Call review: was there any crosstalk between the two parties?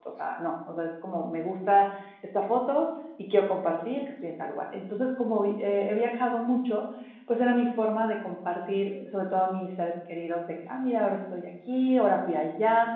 No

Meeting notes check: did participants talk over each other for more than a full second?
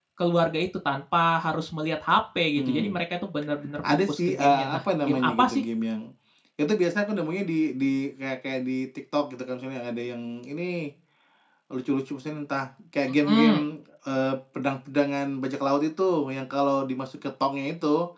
Yes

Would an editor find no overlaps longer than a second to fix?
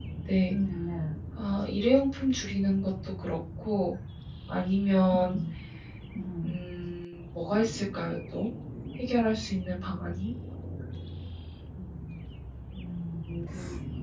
Yes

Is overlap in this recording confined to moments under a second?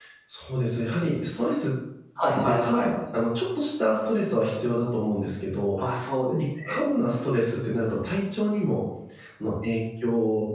Yes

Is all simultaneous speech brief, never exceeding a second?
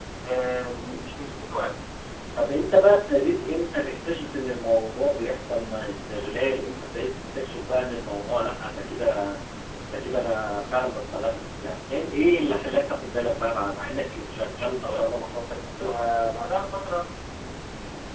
Yes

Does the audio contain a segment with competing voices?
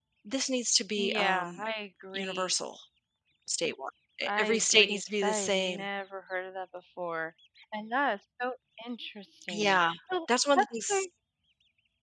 Yes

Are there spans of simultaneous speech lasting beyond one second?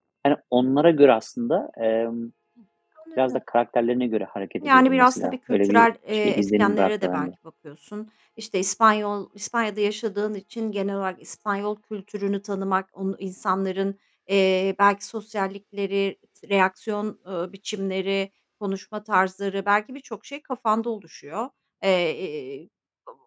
Yes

